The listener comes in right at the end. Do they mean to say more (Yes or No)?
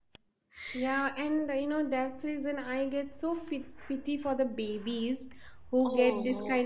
No